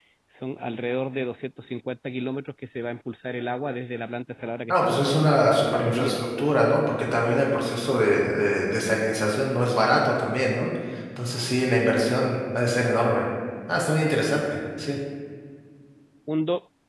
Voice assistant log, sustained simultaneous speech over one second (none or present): present